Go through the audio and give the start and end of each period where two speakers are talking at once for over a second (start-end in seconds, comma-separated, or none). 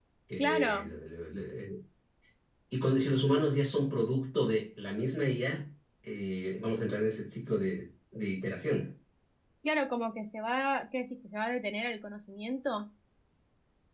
none